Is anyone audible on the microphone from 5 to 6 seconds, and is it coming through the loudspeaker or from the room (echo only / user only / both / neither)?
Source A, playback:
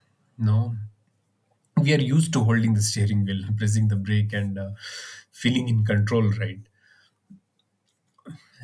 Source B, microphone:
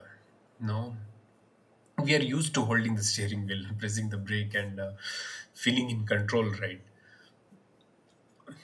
echo only